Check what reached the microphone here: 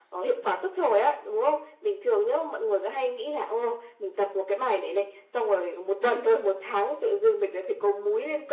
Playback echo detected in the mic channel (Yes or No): Yes